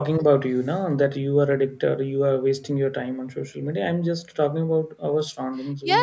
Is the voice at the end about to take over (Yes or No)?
Yes